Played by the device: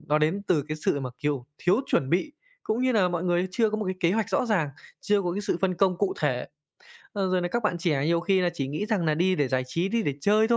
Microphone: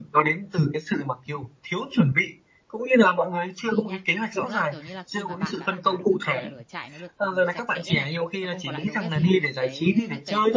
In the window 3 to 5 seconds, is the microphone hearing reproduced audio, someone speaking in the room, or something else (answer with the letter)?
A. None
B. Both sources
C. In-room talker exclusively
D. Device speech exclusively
B